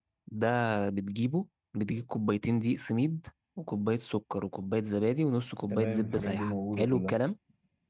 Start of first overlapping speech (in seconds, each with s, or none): 5.7 s